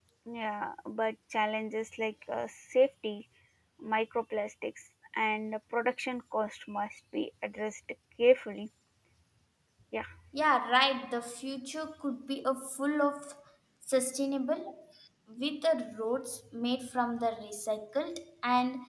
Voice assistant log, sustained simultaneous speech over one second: none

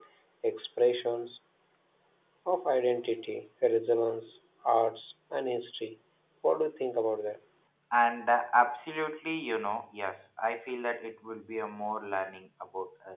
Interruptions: none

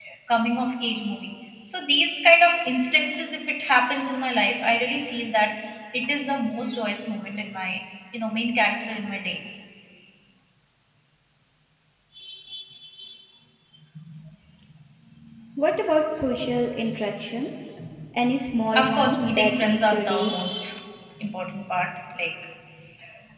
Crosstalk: present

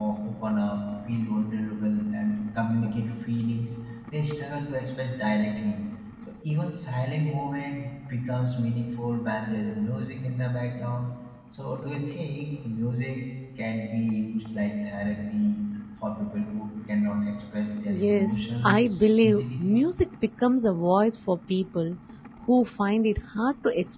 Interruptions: present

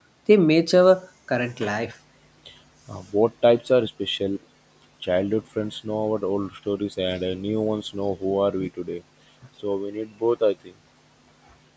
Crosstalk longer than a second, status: none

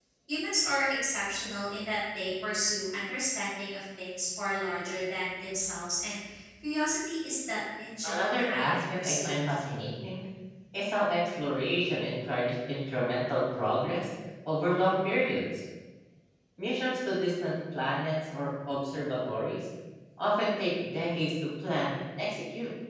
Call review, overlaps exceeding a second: present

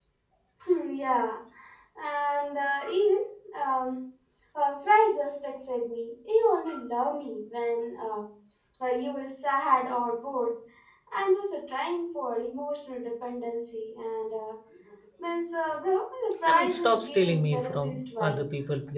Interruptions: present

